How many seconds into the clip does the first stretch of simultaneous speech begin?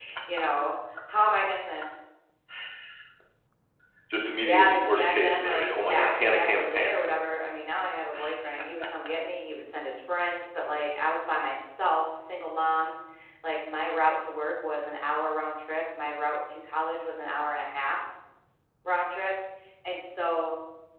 4 s

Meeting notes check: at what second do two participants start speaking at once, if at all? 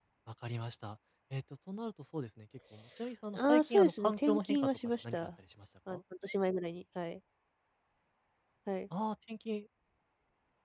3 s

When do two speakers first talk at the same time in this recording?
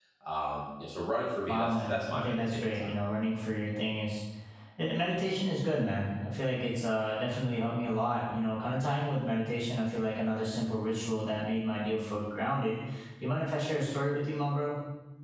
1 s

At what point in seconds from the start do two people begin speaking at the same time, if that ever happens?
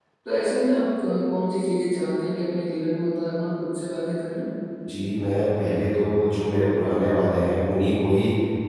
none

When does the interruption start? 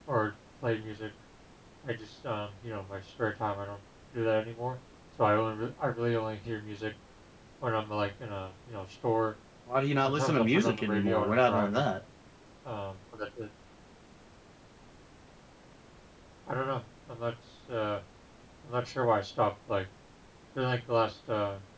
10 s

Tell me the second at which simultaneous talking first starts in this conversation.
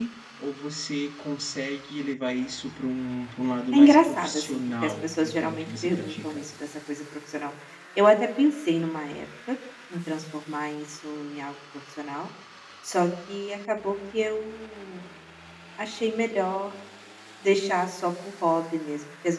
4 s

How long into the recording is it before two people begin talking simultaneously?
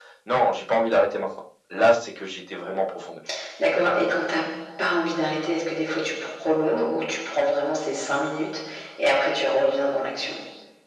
none

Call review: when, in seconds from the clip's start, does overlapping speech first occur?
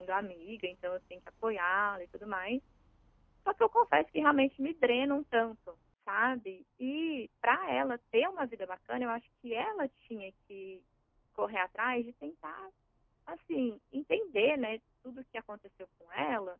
none

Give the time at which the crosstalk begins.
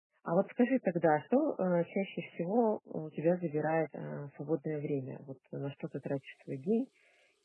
none

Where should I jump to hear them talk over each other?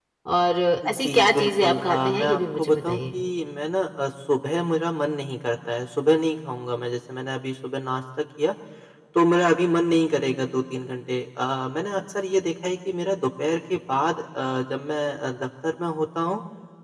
1 s

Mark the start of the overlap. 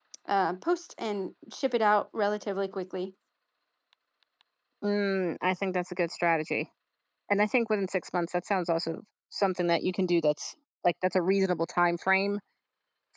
none

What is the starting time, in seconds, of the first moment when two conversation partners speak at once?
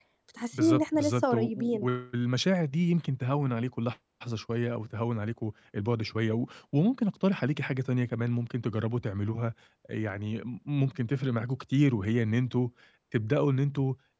1 s

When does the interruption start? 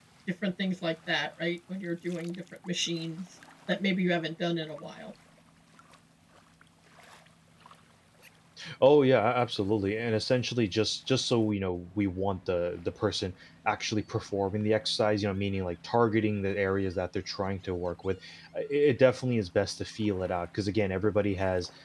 none

